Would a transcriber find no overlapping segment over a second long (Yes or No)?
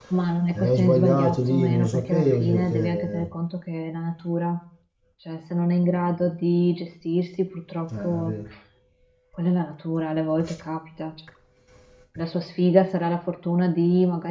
No